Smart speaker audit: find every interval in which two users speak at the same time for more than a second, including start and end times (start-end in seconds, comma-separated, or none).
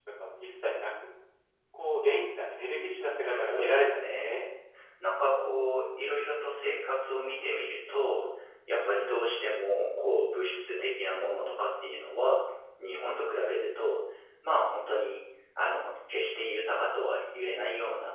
3.2-4.4